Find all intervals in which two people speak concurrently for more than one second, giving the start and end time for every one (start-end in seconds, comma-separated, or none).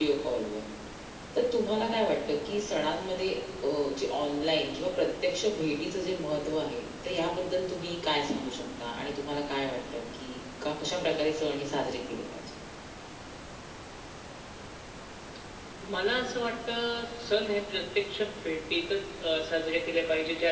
none